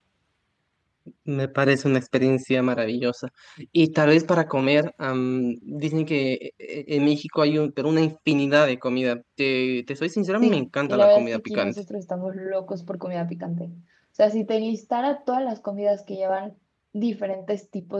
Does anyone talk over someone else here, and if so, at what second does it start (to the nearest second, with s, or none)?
10 s